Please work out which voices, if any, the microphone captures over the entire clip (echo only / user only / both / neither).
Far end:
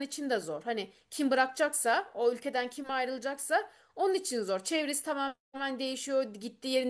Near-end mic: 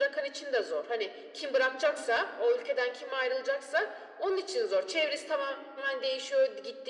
echo only